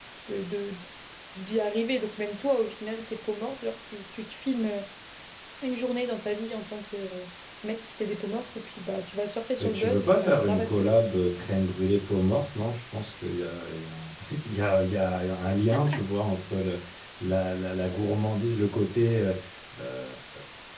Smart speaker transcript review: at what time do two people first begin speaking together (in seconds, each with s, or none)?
9.6 s